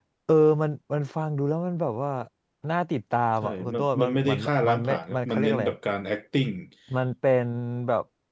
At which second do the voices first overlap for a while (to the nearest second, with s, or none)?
3 s